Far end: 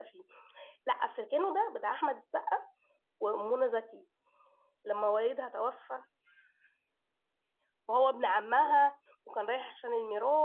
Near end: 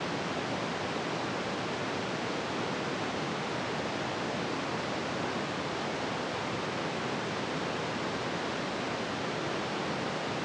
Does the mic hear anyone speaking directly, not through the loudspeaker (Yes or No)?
No